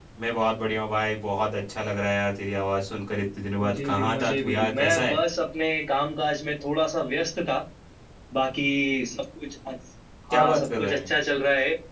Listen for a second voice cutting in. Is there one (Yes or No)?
Yes